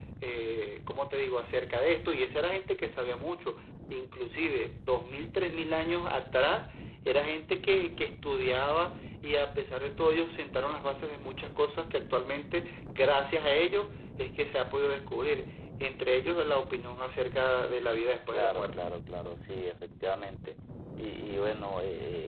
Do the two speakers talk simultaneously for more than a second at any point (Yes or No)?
No